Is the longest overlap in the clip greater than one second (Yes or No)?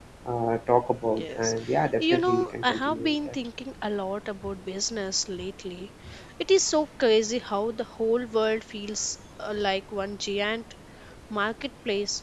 Yes